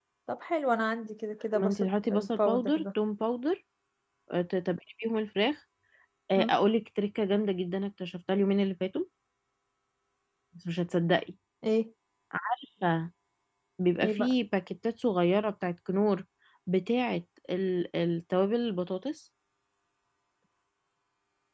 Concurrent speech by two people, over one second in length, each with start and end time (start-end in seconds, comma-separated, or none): 1.5-2.8